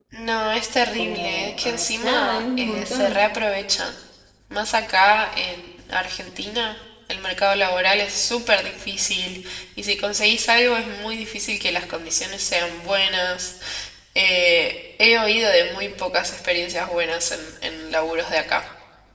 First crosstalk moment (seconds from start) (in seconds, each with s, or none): 1.0 s